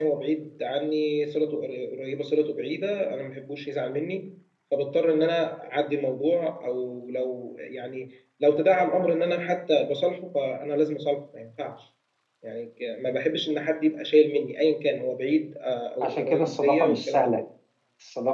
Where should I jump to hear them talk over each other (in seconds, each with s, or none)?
16.0 s